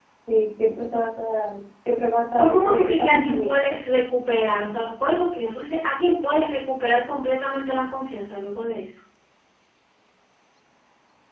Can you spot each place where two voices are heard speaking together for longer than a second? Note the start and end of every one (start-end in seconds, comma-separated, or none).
2.4-3.7